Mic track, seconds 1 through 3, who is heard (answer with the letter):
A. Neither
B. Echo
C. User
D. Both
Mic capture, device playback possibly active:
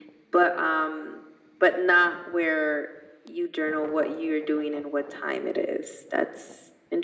B